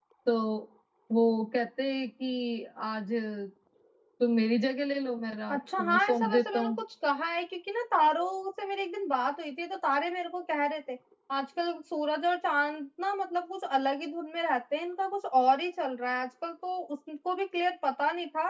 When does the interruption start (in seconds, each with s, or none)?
5.5 s